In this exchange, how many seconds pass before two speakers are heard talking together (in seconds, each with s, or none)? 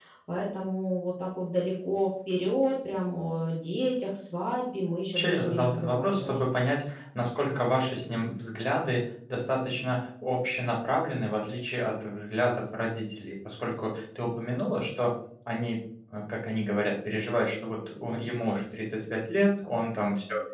5.2 s